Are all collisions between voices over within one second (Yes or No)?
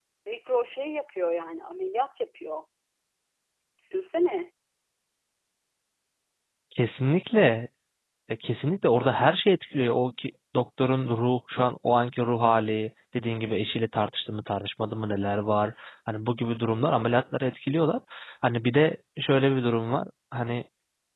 Yes